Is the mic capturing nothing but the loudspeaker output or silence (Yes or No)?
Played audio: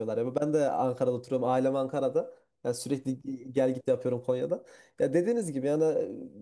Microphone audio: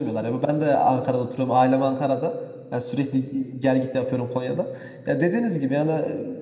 Yes